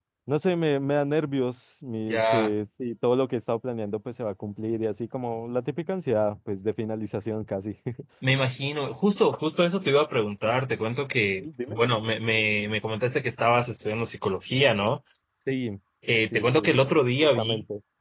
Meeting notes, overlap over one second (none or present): none